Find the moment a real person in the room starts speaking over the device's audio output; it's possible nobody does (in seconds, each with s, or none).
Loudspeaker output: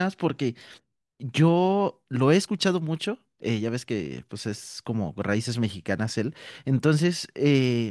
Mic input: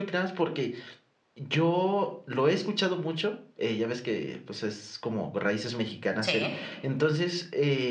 6.2 s